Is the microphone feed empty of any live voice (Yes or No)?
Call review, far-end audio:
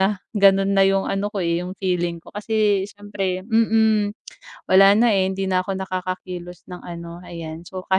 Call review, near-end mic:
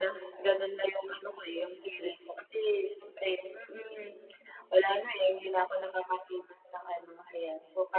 Yes